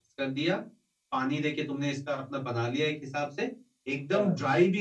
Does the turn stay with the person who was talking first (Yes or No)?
Yes